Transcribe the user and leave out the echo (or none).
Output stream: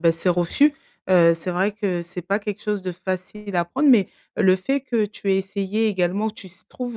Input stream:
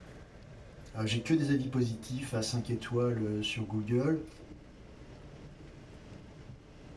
heu, j'ai que des avis positifs à 5 étoiles, heu, sur Google